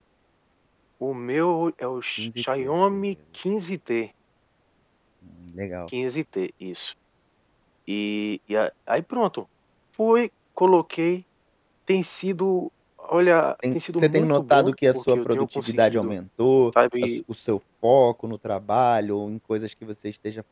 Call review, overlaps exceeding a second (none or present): present